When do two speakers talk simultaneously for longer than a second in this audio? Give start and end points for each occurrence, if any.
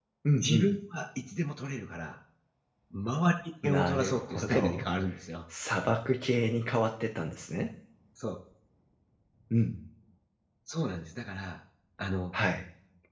3.6-4.9

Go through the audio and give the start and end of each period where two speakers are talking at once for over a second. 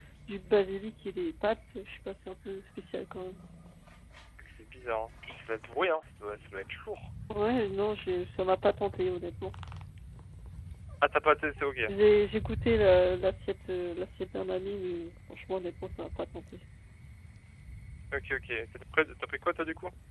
none

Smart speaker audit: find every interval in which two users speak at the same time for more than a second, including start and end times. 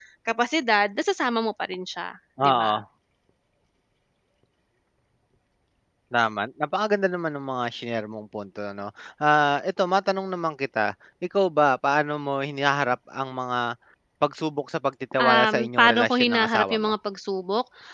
15.2-16.8

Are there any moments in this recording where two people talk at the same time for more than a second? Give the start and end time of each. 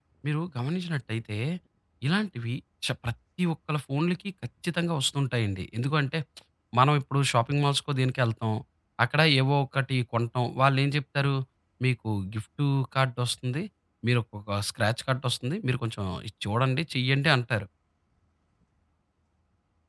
none

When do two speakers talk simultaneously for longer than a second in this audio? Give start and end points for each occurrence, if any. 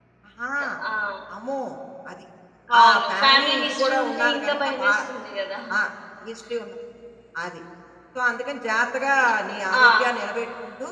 2.8-4.9

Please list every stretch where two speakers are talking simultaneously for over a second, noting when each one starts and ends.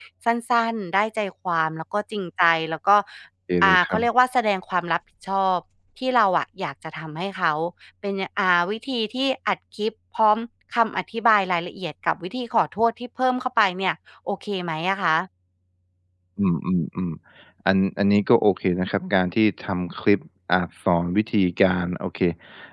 none

